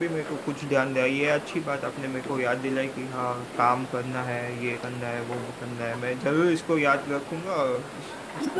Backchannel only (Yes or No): No